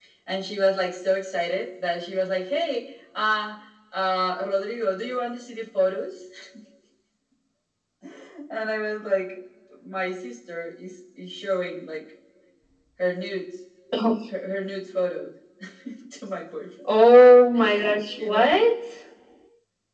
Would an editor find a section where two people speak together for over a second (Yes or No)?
No